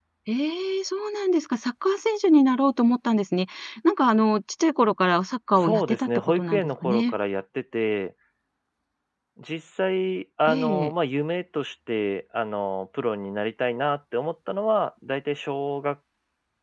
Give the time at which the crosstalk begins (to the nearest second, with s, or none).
6 s